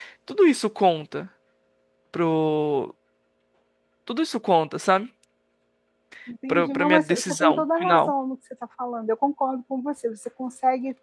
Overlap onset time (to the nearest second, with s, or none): 6 s